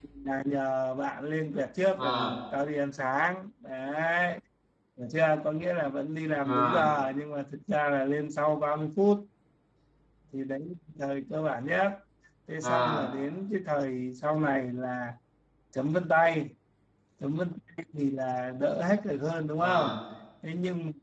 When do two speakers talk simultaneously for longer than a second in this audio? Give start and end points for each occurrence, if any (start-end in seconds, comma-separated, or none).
none